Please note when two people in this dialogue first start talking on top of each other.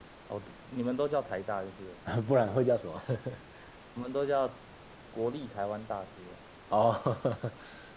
none

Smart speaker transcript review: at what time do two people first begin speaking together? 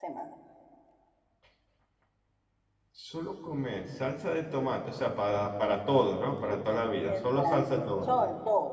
6 s

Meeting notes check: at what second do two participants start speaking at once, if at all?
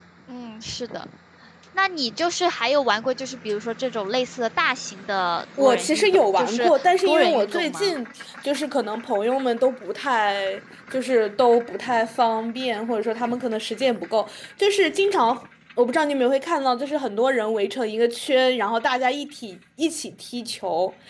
6 s

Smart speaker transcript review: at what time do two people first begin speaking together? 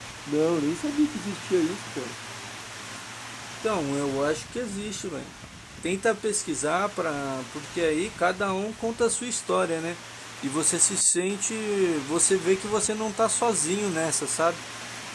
none

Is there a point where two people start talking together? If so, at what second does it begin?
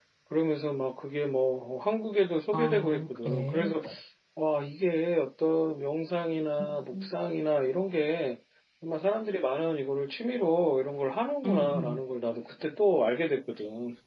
3 s

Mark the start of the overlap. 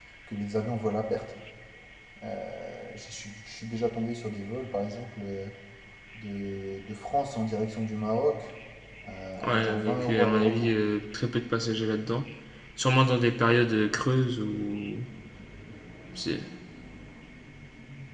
9 s

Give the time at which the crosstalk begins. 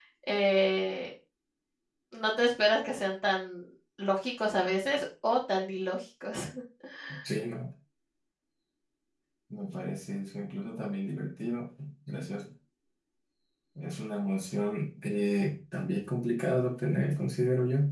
none

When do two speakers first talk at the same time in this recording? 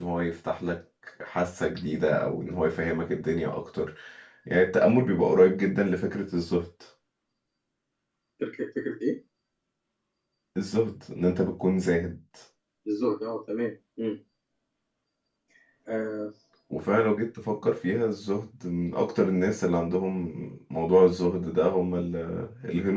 none

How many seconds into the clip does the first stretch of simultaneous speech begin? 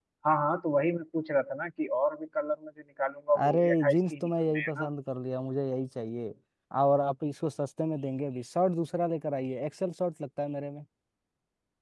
3 s

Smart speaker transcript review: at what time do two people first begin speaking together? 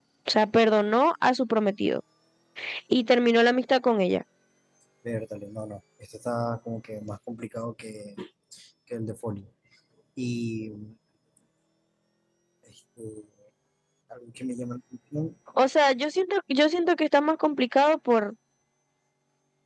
none

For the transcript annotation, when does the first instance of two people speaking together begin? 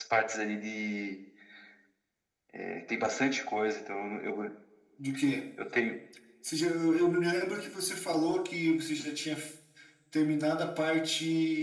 none

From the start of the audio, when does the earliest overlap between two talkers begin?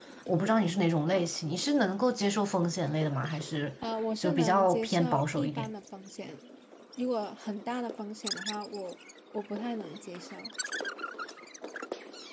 4 s

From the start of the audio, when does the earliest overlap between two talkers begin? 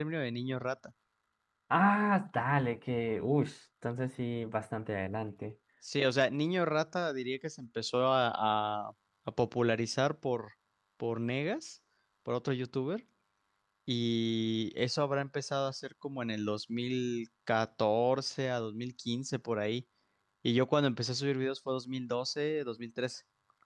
none

